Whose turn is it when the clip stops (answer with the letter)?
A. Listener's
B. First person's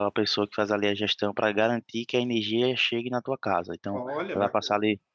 B